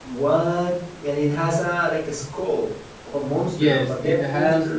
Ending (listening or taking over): taking over